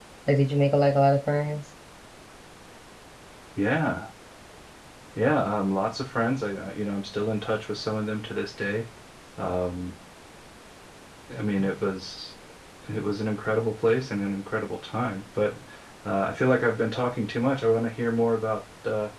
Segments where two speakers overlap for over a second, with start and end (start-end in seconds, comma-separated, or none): none